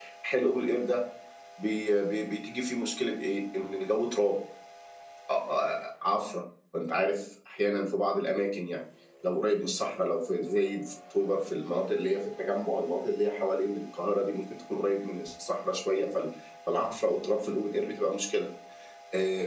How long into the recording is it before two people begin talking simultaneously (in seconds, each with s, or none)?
none